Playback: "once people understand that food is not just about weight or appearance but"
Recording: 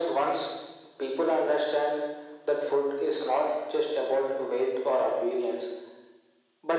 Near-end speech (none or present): none